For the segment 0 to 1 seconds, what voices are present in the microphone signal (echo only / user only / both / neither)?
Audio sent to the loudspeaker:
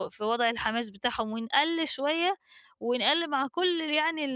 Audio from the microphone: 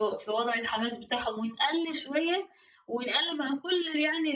echo only